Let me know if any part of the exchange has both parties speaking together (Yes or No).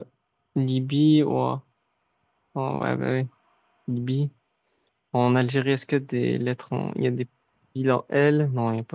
No